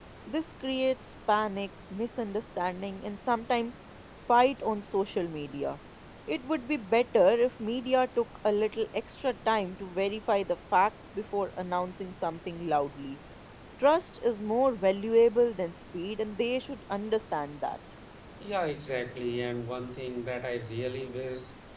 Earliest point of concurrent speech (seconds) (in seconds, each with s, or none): none